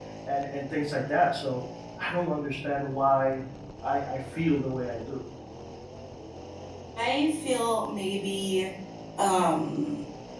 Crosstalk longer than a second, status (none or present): none